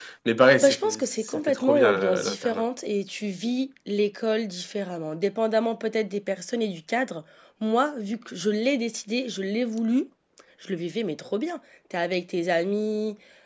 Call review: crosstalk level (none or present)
present